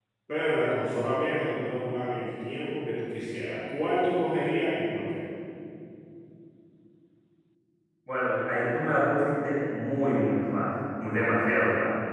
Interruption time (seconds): none

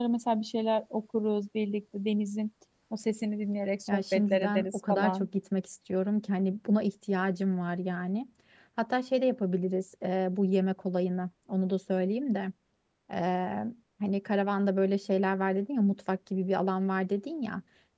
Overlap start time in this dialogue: 4 s

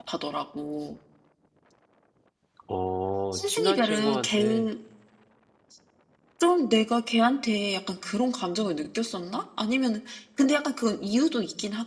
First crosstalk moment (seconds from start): 3 s

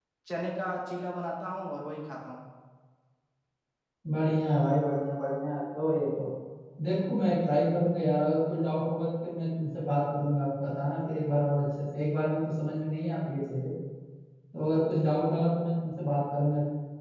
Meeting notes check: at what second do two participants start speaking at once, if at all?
none

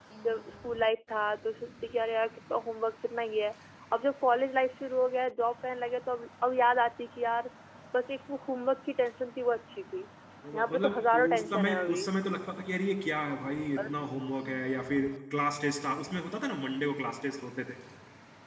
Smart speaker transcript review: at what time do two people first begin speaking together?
11 s

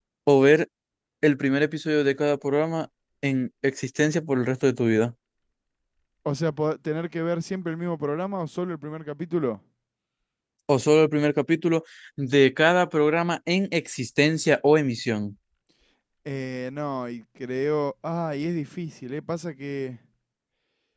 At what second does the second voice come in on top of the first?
none

